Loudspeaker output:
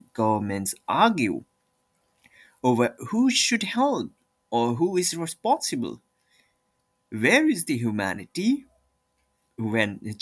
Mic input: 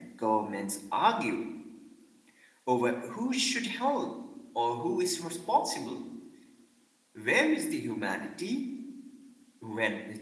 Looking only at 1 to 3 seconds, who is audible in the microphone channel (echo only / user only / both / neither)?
echo only